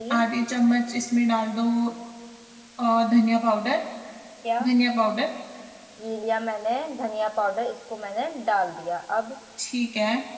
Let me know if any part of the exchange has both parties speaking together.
No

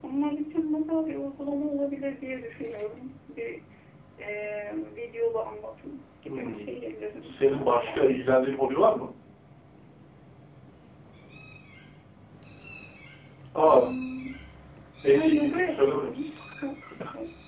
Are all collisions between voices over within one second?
No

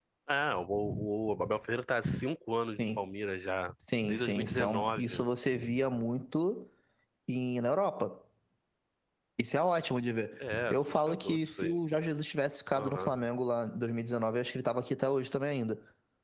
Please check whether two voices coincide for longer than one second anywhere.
Yes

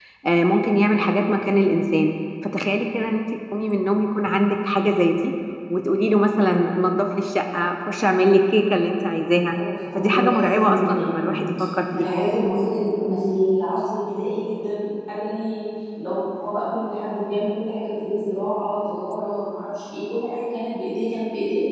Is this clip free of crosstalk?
No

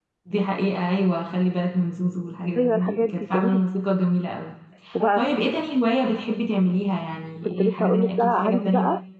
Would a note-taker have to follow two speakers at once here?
Yes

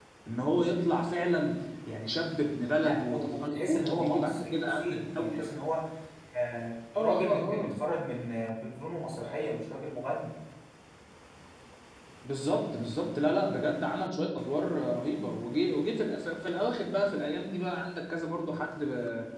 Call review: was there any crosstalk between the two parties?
Yes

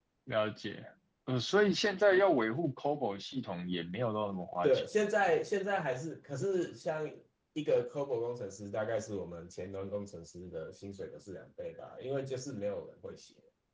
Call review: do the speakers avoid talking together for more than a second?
Yes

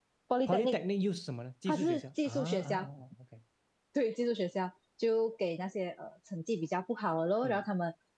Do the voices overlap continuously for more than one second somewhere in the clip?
Yes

